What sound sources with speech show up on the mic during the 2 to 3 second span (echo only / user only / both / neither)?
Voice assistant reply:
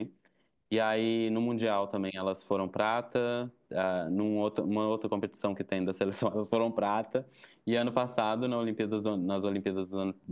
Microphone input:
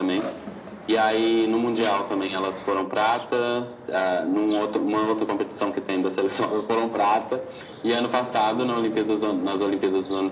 echo only